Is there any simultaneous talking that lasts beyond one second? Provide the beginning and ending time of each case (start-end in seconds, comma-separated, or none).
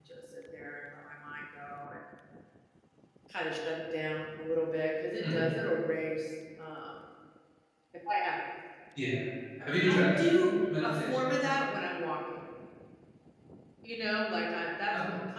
9.9-11.5